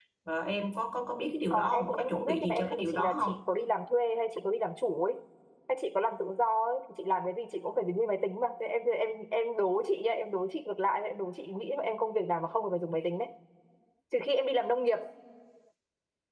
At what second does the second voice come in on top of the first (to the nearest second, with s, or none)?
2 s